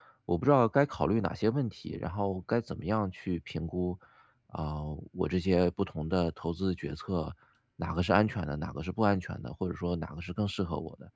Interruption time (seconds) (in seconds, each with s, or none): none